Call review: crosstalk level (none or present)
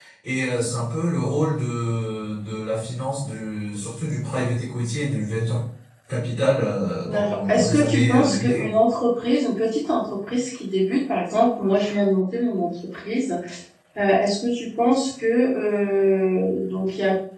present